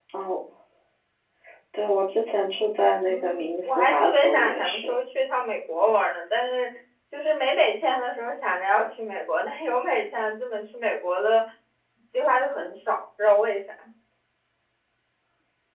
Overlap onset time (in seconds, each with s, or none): 3.0 s